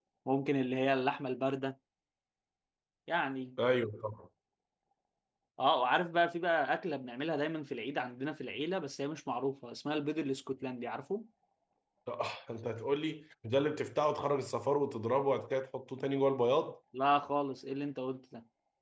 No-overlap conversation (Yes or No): Yes